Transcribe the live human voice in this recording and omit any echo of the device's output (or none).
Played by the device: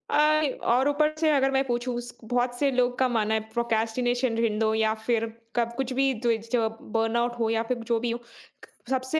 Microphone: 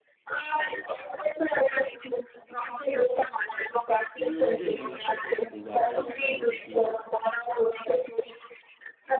मुझे नहीं लगता कि मैं दोबारा जाऊँगा क्योंकि